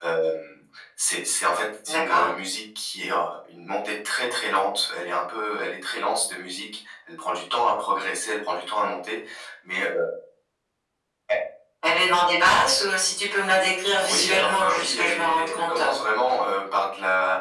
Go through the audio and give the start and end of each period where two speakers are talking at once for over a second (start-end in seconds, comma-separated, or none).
13.9-15.8